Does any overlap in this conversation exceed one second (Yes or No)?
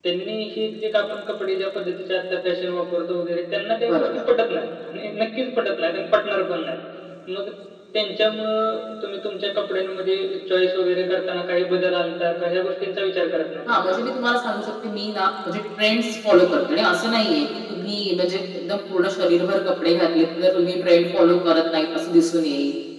No